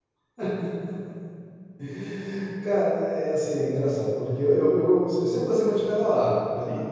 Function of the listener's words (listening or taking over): listening